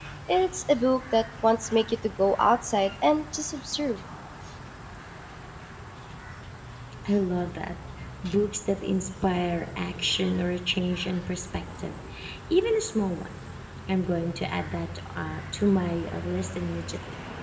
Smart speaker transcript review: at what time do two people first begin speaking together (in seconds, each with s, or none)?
none